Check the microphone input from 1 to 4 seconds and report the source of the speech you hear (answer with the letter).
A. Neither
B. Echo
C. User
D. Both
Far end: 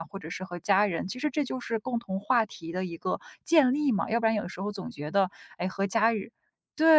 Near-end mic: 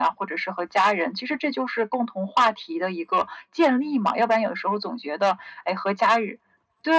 B